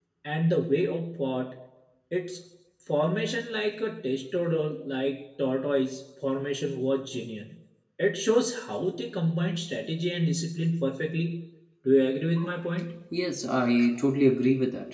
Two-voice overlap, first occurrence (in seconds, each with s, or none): none